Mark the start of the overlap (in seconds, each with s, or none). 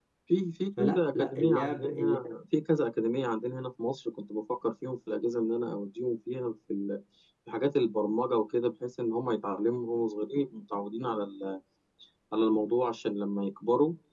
0.8 s